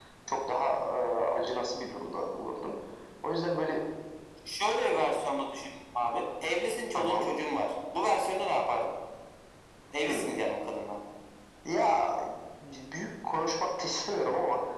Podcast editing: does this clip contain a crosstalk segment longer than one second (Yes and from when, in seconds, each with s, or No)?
No